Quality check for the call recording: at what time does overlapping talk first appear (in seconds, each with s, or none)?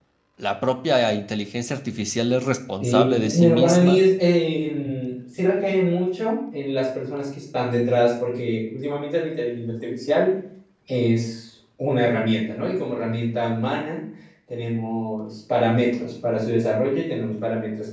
2.8 s